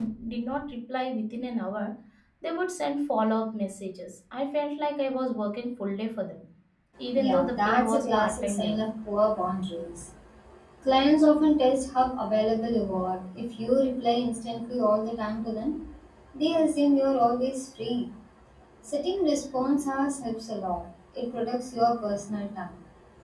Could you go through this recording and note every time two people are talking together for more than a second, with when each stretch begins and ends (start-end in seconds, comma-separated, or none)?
7.2-8.8